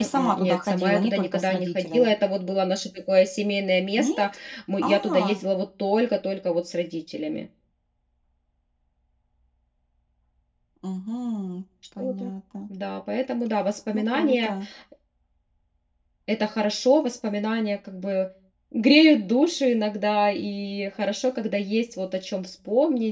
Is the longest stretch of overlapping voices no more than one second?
No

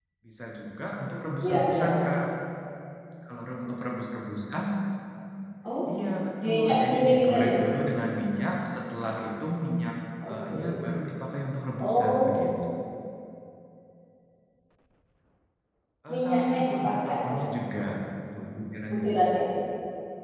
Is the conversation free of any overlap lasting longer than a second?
No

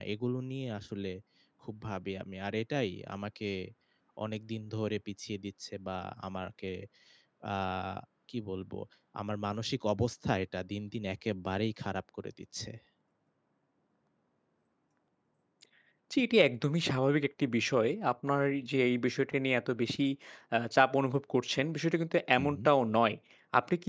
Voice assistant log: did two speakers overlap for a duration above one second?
No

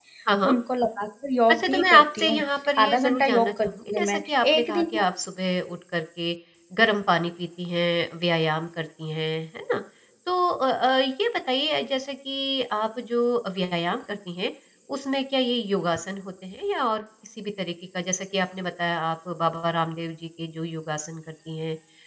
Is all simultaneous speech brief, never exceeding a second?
No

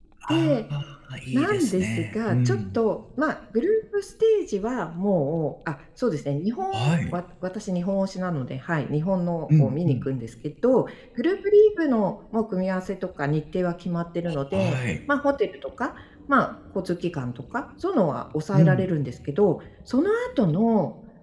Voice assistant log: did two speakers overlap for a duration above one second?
Yes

